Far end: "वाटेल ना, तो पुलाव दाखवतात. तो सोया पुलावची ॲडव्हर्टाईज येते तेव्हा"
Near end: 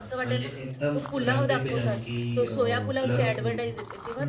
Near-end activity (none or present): present